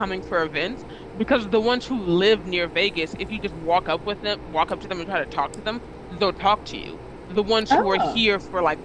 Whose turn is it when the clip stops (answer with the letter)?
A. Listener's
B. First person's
B